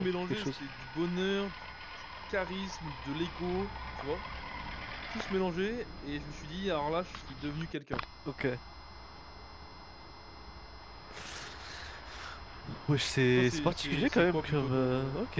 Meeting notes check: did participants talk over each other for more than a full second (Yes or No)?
Yes